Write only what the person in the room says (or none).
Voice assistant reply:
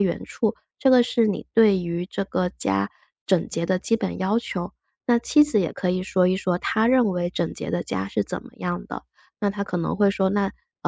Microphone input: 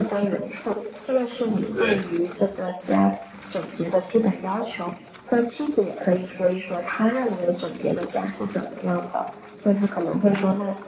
对，